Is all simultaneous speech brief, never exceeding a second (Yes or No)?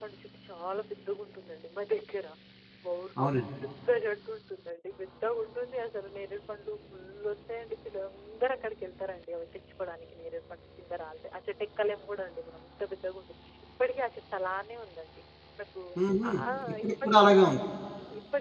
Yes